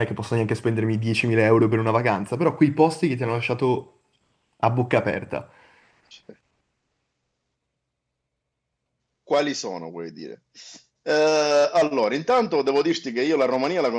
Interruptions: none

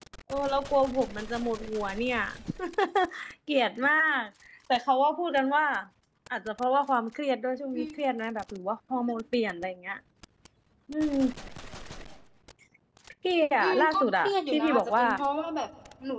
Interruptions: present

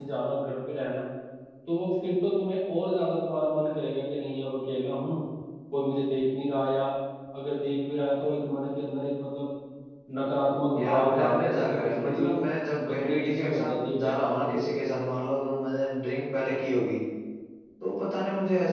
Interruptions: present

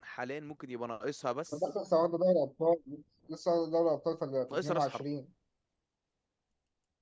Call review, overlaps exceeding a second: none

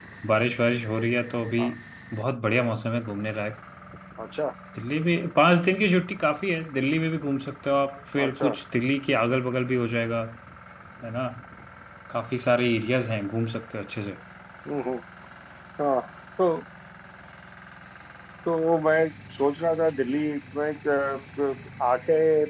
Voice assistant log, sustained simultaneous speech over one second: none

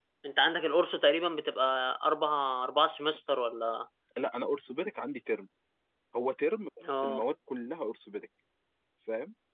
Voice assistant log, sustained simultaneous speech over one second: none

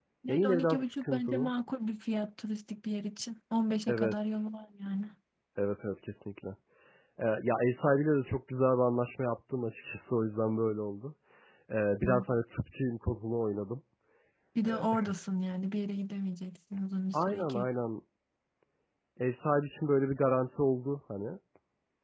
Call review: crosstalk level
present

